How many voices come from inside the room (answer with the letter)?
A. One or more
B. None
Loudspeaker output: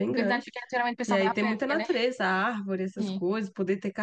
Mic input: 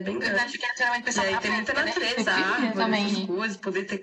A